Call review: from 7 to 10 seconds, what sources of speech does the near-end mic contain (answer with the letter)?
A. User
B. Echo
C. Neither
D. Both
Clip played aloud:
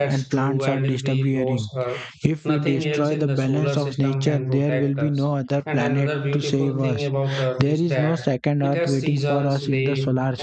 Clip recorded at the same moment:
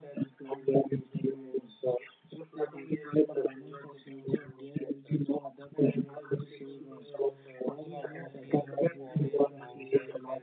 D